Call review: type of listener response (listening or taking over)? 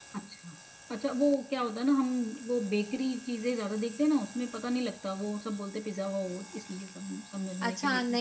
taking over